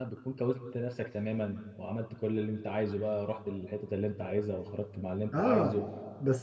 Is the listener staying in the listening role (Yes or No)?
No